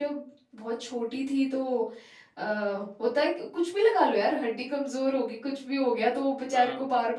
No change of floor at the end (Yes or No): Yes